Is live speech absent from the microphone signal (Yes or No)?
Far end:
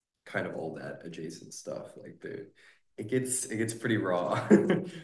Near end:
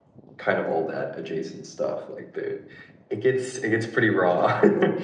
Yes